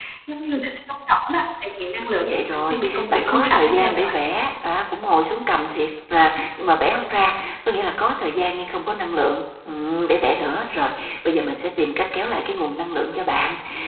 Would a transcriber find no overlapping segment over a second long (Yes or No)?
No